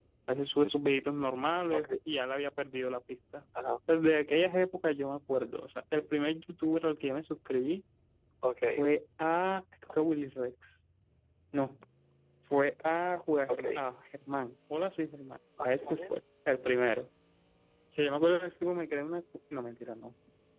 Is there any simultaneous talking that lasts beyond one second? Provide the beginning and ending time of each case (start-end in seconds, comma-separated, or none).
none